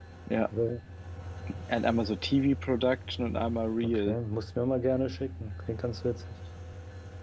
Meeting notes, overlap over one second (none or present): none